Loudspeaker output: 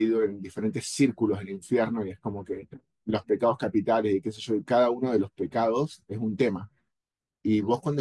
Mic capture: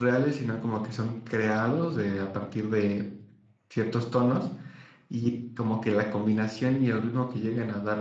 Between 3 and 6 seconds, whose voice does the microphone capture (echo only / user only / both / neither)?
user only